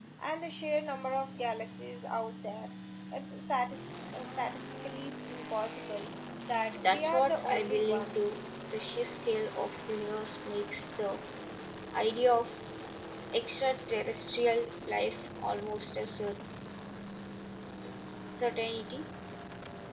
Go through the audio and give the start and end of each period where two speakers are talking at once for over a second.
6.8-8.4

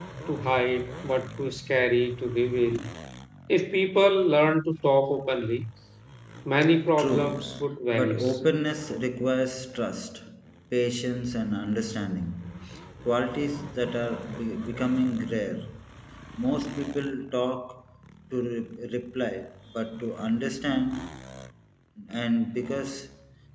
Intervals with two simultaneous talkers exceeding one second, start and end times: 7.0-8.3

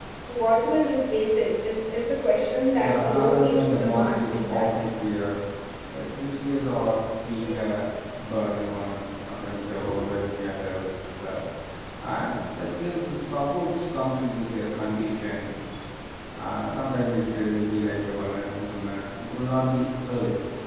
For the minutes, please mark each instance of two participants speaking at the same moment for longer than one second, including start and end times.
2.8-4.7

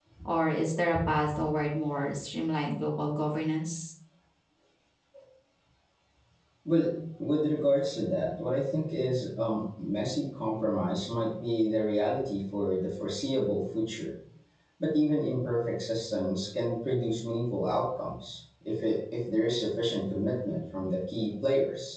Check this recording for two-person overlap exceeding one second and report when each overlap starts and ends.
none

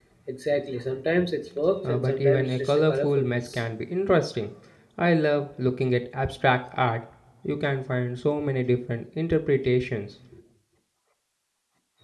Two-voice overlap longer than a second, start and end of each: 1.8-3.6

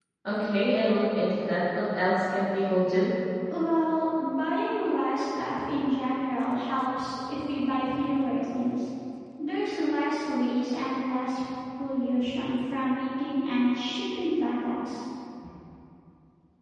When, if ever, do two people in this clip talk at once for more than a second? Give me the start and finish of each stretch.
none

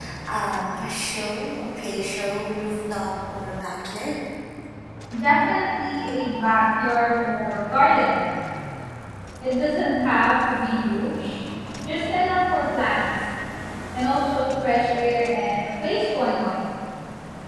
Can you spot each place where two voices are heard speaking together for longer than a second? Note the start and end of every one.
none

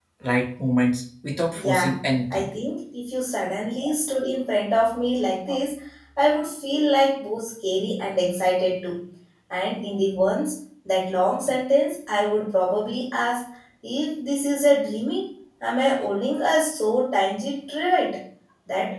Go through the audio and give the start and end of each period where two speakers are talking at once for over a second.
none

